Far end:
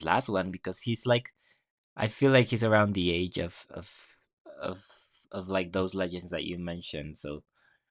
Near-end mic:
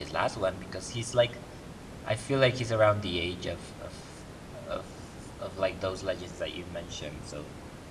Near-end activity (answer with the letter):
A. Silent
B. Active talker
A